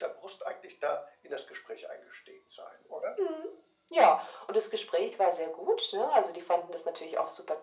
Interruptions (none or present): none